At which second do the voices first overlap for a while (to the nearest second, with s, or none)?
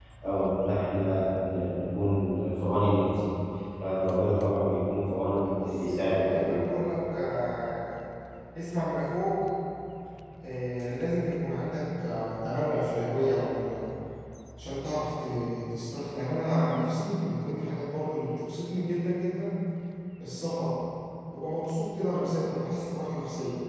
5 s